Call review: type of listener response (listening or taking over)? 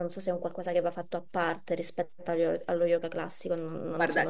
taking over